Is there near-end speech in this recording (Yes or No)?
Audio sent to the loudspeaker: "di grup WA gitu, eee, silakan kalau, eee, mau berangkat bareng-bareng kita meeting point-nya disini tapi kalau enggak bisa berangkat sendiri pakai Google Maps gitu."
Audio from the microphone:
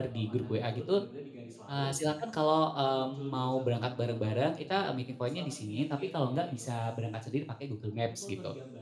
Yes